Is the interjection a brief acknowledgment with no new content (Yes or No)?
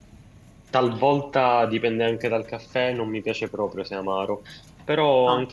Yes